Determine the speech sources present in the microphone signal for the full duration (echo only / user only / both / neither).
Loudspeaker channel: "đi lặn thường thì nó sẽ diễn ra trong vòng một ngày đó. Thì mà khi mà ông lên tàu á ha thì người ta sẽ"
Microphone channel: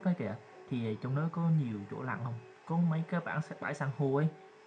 user only